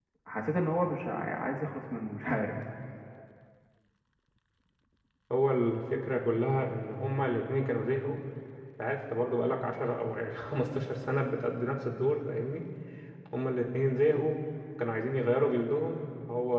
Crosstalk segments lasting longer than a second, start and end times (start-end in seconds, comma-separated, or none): none